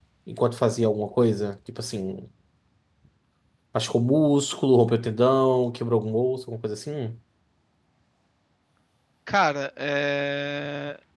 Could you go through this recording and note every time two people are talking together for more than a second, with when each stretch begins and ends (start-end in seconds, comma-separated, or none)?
none